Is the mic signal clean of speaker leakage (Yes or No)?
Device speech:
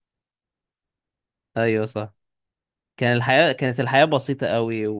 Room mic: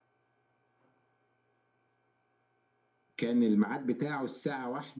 Yes